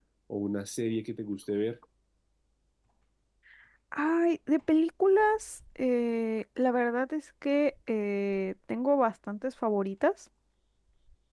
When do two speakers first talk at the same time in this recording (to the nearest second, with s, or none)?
none